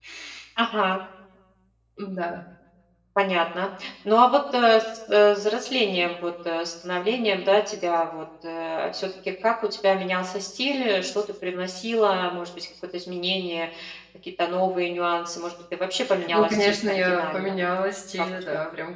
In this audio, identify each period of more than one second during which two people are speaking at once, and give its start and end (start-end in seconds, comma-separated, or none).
16.3-17.6